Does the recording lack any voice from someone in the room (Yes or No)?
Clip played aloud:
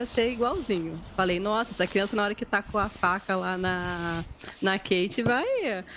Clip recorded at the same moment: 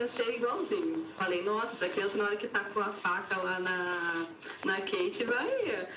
Yes